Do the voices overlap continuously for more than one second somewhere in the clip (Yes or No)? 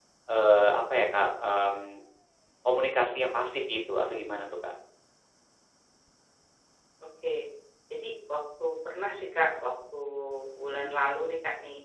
No